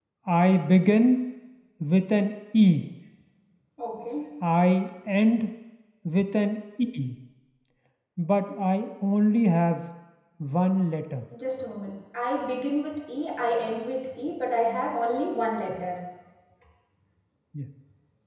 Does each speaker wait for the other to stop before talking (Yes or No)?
Yes